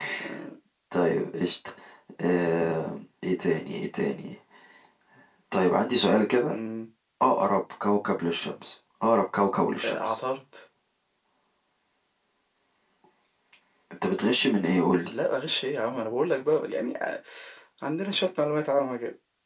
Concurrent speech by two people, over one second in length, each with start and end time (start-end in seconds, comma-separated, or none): none